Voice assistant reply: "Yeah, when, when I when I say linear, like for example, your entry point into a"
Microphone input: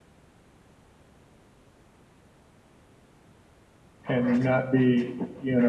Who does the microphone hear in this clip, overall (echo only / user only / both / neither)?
user only